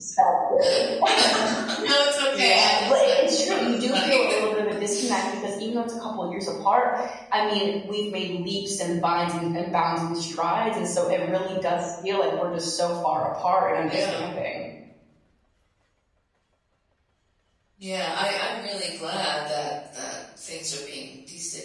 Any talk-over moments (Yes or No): Yes